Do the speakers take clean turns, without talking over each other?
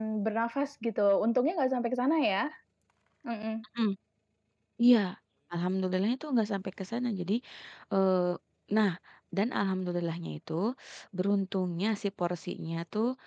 Yes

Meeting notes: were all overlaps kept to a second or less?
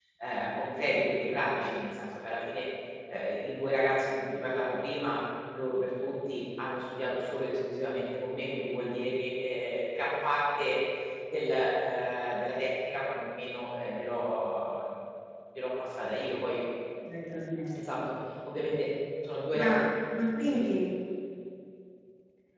Yes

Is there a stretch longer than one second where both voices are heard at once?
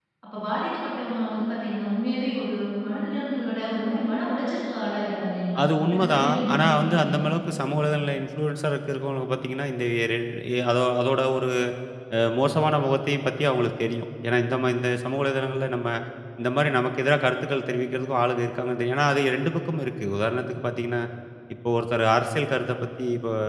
Yes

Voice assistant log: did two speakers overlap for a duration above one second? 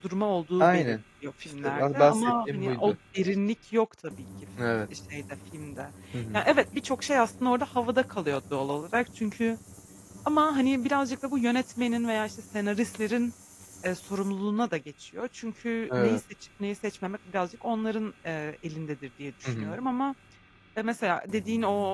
Yes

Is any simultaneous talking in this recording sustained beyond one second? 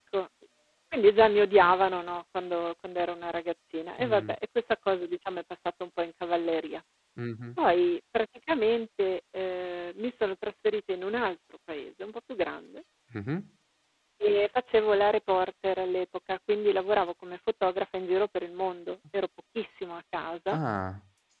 No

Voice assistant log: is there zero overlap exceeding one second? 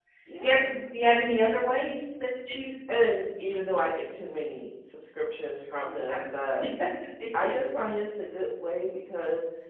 Yes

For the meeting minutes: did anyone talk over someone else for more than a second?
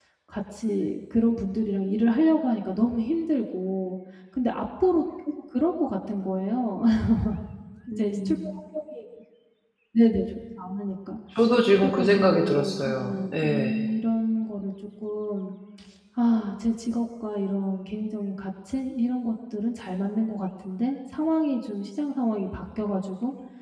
Yes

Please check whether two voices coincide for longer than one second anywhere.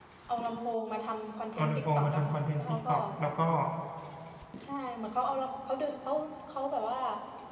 Yes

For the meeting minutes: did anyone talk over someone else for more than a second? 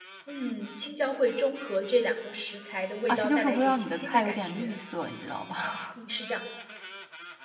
Yes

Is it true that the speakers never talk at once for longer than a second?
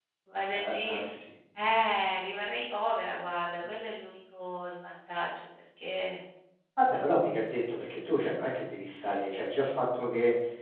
Yes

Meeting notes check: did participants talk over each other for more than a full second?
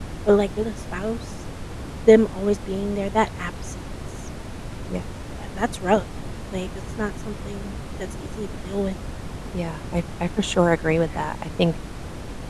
No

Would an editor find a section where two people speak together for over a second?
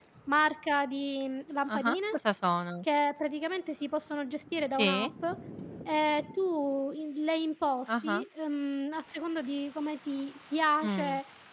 No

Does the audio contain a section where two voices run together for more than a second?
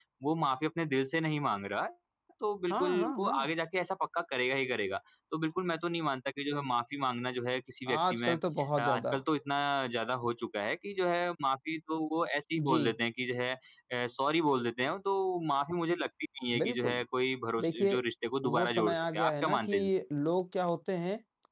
Yes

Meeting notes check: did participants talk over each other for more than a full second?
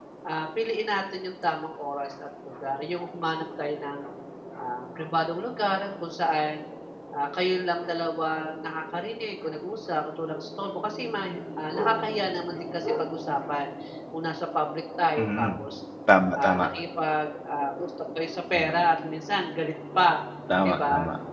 No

